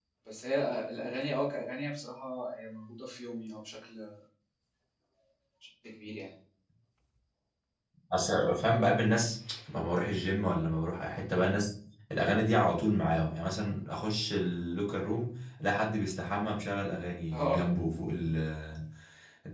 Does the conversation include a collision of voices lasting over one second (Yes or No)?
No